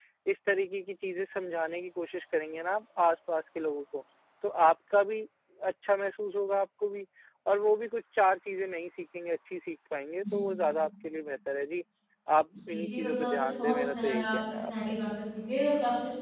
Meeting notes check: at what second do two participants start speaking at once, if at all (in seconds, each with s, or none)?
12.7 s